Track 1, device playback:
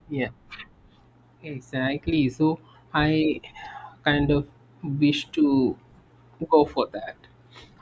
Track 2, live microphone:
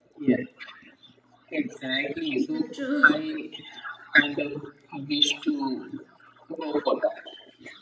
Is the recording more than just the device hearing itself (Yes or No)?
Yes